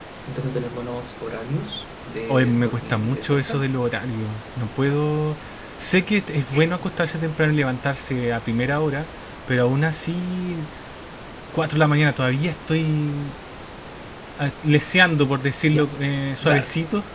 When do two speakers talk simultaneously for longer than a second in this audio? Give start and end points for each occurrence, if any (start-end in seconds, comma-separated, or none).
2.3-3.6